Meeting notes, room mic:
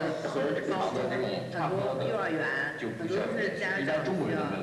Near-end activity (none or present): present